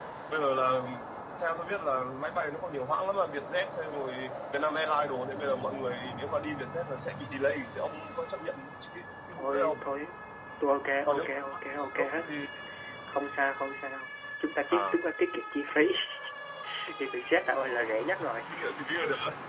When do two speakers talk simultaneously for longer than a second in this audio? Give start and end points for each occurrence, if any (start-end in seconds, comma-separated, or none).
11.0-12.3